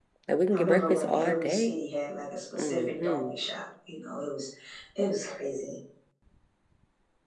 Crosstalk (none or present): present